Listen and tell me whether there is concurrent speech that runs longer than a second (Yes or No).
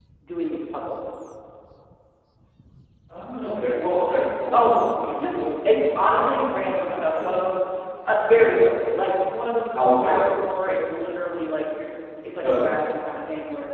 Yes